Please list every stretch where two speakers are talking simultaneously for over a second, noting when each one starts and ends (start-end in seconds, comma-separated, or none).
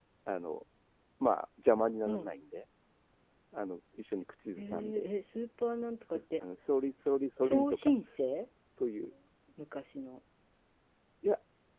none